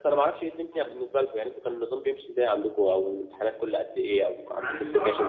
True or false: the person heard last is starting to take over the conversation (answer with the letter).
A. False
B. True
B